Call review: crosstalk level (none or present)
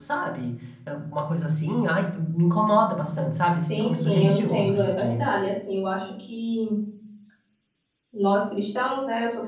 present